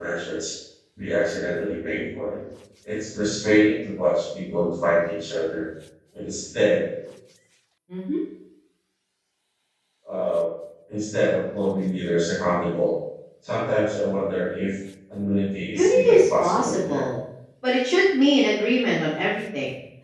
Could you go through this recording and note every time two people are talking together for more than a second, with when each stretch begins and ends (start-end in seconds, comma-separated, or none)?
15.7-17.0